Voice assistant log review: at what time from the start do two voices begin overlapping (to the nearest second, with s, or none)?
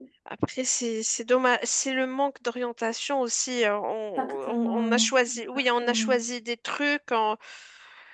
4 s